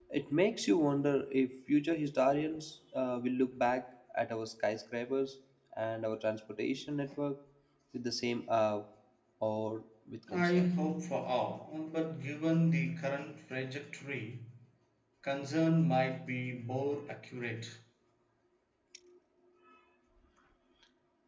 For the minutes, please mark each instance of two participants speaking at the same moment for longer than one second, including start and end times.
none

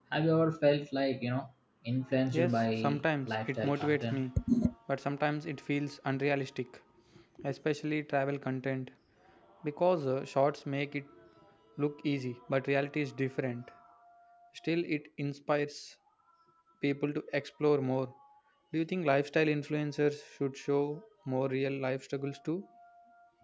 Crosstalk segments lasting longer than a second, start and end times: 2.3-4.2

